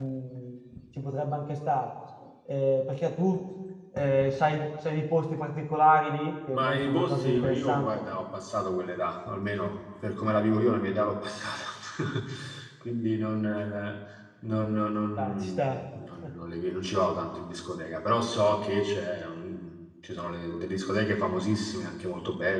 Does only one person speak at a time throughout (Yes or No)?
No